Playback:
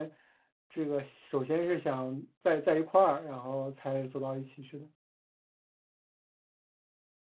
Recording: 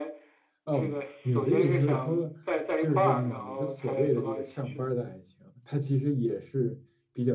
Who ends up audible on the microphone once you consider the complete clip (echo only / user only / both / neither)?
both